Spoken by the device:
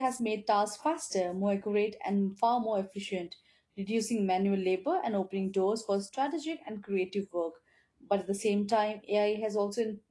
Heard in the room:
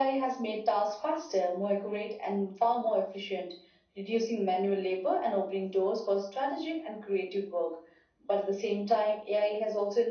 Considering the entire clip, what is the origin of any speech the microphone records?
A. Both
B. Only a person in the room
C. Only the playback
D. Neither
C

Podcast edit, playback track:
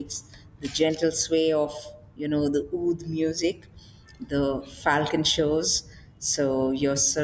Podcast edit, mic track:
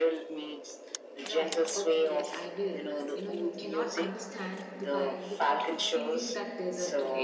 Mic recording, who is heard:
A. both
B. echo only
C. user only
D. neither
A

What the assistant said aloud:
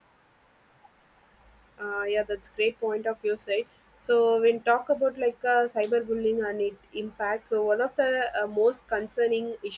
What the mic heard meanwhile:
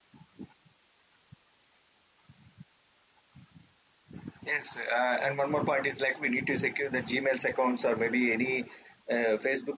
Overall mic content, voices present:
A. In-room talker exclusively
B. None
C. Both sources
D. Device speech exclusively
A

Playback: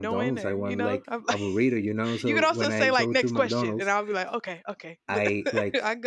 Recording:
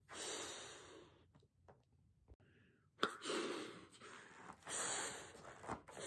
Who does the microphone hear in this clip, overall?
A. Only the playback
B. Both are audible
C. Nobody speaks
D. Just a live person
C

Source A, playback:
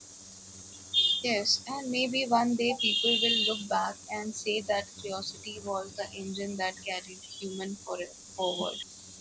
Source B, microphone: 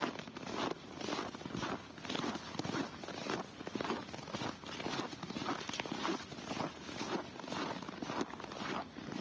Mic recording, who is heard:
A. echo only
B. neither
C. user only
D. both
B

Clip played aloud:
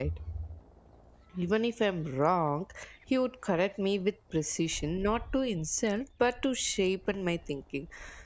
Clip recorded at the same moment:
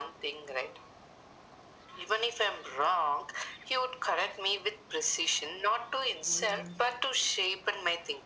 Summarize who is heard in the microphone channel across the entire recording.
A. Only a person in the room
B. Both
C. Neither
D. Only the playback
B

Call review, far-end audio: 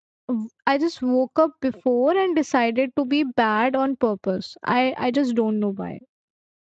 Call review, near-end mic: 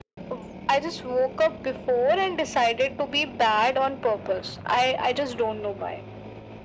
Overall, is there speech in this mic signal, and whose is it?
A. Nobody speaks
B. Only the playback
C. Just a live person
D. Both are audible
B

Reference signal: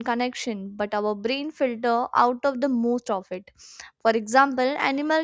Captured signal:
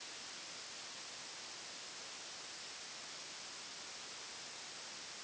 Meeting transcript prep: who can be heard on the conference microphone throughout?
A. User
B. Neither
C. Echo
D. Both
B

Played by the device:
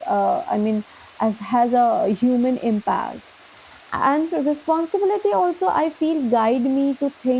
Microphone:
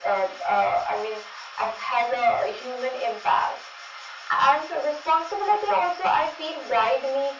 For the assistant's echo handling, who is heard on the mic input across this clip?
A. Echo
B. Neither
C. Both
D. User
A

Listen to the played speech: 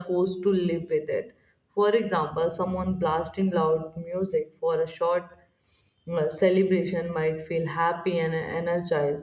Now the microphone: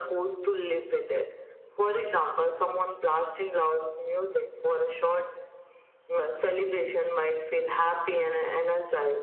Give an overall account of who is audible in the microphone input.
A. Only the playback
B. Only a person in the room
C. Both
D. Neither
A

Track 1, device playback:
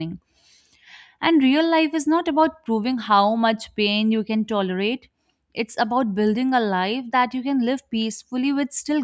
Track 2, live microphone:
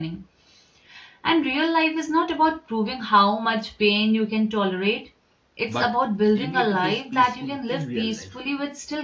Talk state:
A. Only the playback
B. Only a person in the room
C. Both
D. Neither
C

